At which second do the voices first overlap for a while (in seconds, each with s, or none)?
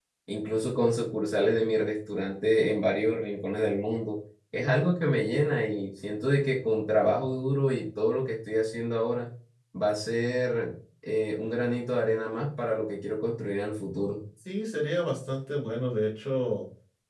none